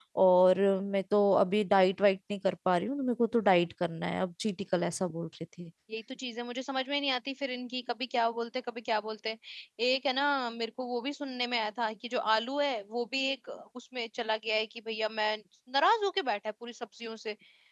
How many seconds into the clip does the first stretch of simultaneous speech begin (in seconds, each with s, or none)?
none